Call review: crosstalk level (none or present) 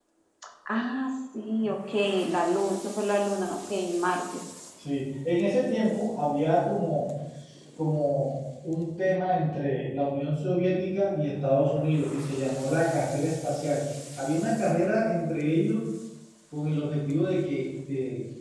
none